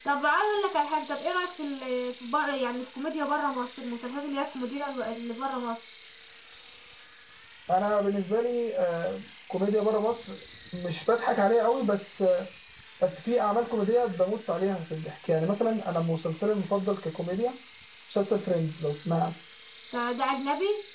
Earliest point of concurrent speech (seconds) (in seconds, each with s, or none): none